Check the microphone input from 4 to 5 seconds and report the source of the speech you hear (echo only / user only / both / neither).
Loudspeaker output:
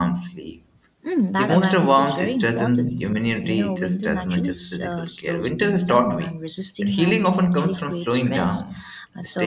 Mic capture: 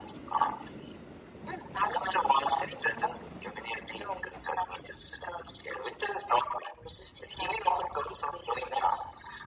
echo only